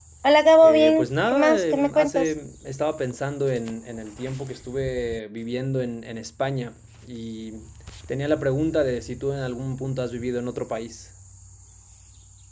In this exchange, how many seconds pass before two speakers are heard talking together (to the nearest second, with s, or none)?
1 s